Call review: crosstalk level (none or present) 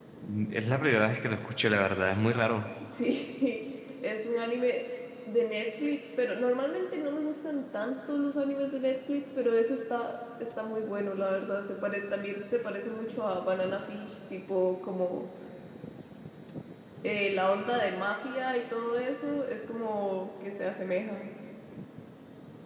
none